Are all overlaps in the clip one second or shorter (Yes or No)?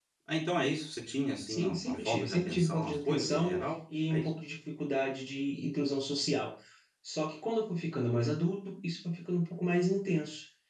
No